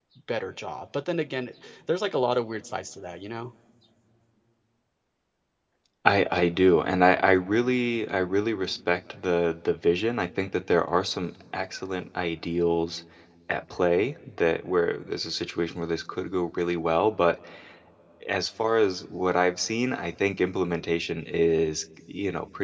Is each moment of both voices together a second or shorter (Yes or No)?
Yes